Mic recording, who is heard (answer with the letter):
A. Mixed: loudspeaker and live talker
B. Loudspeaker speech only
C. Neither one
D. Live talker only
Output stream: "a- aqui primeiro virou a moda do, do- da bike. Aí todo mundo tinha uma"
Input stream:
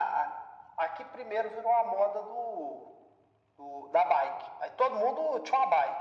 B